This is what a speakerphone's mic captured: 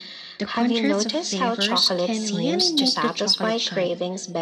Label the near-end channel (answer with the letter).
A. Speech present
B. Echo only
A